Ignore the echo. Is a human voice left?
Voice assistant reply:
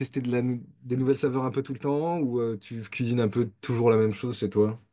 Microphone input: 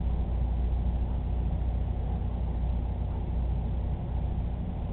No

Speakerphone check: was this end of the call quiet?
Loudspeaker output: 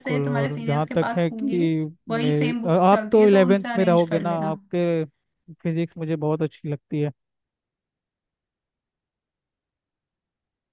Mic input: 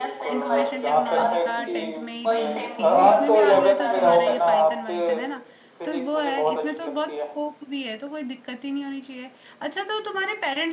No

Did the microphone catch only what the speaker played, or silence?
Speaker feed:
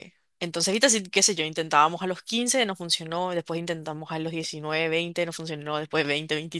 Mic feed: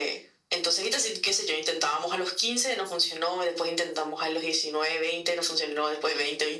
Yes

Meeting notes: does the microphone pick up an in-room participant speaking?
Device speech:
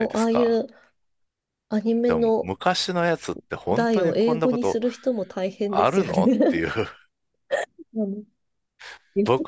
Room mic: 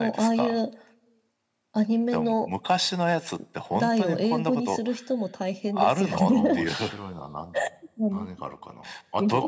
Yes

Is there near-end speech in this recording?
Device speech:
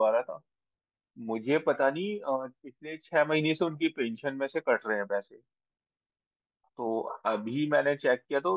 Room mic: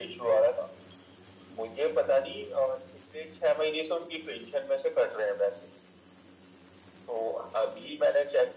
No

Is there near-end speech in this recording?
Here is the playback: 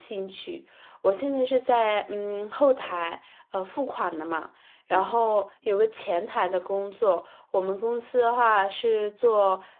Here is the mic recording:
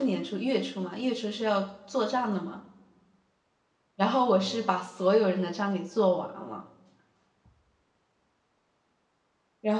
Yes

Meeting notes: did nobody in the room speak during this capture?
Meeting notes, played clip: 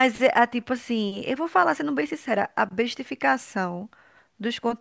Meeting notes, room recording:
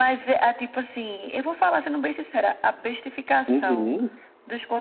No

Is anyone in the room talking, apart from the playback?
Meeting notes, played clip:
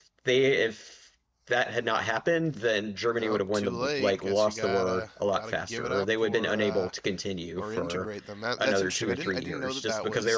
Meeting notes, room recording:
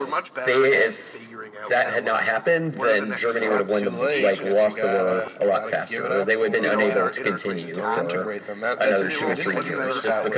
Yes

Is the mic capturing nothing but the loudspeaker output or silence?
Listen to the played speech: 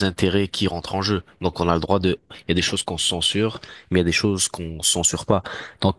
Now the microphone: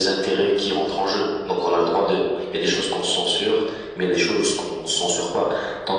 Yes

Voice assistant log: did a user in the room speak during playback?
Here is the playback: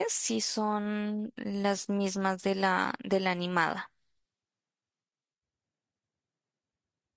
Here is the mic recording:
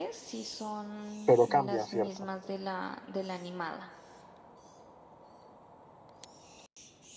Yes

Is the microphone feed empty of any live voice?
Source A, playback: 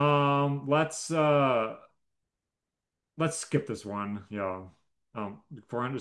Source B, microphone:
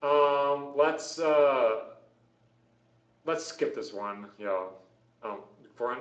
Yes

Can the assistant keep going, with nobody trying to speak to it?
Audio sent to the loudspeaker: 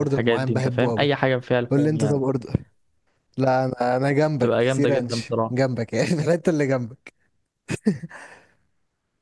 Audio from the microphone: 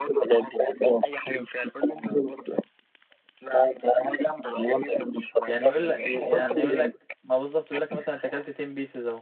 No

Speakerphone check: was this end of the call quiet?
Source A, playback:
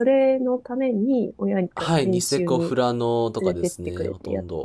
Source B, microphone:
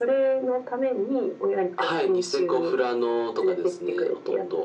Yes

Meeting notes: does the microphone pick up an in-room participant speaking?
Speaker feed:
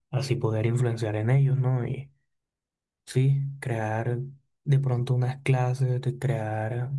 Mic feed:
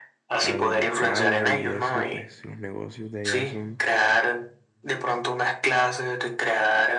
Yes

